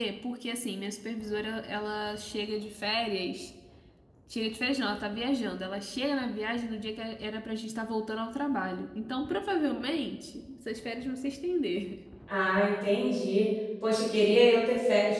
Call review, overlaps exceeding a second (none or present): none